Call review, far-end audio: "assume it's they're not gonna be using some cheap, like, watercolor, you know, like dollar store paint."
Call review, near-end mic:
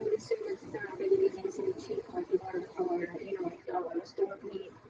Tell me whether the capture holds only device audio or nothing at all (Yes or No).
Yes